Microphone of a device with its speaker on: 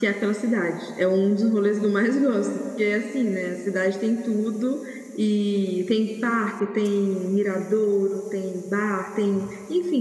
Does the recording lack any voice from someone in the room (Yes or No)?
No